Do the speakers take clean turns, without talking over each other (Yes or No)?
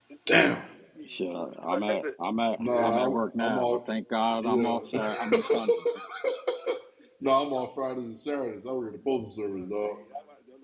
No